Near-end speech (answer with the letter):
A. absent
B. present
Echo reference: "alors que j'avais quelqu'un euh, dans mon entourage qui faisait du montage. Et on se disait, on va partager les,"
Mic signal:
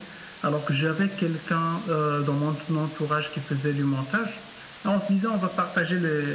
A